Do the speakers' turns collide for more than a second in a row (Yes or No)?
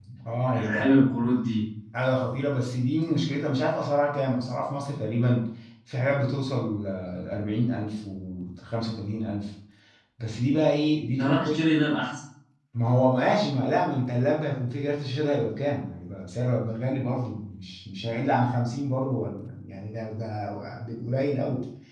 No